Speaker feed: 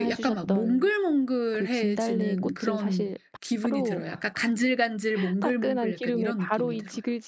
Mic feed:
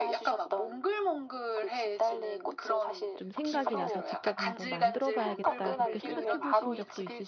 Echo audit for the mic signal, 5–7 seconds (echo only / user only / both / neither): both